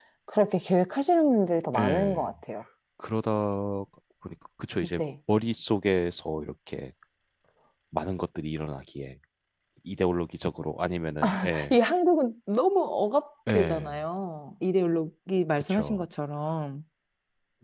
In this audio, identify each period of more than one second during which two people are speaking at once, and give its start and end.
none

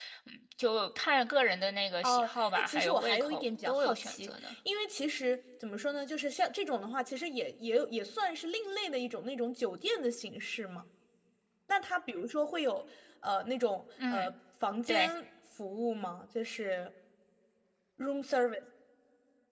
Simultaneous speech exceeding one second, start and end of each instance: 2.0-4.5

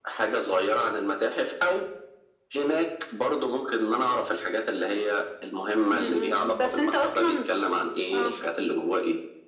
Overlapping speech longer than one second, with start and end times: 5.9-7.5

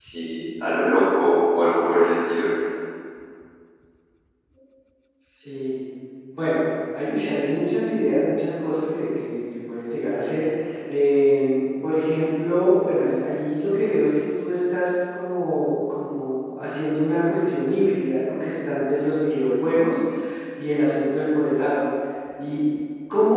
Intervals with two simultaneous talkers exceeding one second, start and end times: none

